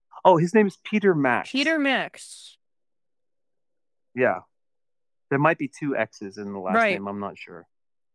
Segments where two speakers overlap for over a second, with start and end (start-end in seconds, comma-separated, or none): none